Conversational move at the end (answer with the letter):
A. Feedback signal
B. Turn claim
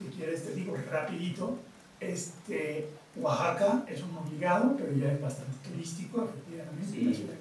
A